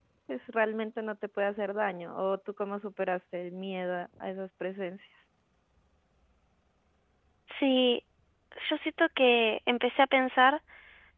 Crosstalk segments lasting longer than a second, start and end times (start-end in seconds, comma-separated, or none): none